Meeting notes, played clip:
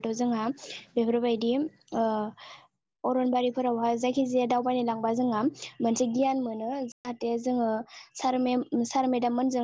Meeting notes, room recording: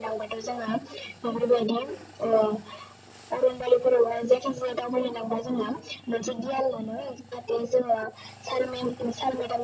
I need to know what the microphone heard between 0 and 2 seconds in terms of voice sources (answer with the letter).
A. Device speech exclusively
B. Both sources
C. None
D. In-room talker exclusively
A